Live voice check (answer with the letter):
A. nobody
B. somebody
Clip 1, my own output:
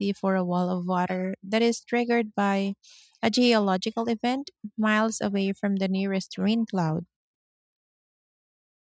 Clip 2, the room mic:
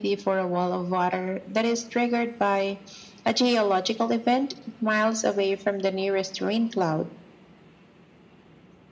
A